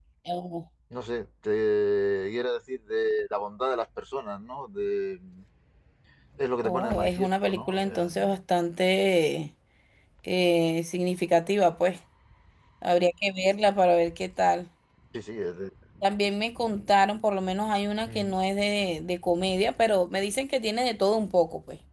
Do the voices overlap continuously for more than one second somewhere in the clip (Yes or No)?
Yes